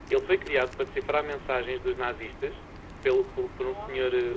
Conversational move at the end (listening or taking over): listening